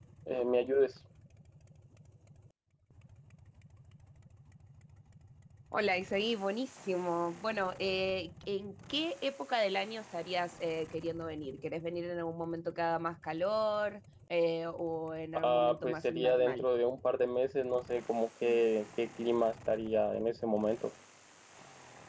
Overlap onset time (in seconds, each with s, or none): 15.3 s